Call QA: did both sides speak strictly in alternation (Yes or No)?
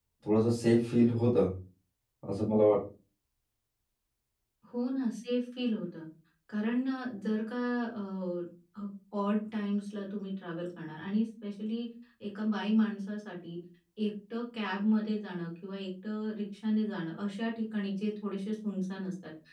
Yes